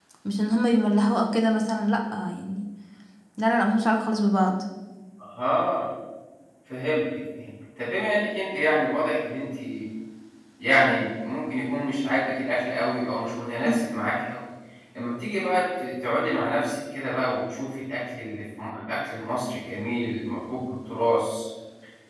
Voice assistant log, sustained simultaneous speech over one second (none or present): none